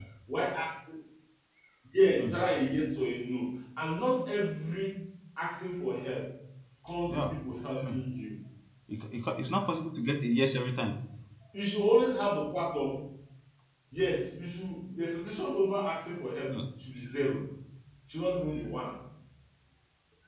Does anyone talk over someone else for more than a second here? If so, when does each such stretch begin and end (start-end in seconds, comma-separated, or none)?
none